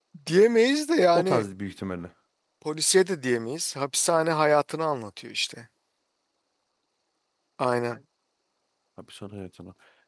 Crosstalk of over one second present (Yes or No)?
No